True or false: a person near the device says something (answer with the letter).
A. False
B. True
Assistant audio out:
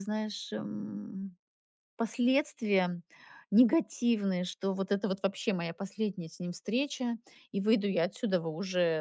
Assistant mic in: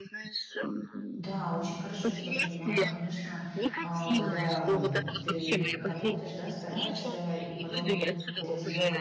B